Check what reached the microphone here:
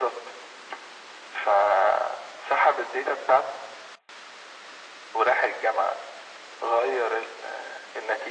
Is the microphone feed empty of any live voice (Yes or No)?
Yes